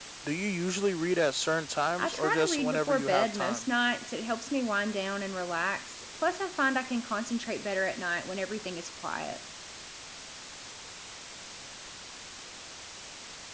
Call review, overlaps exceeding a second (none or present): present